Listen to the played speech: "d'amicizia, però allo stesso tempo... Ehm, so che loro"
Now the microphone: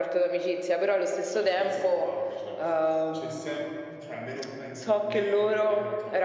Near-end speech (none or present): present